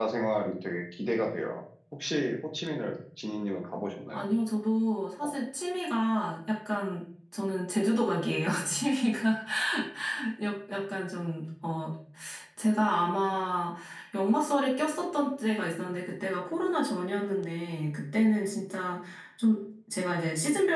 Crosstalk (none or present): none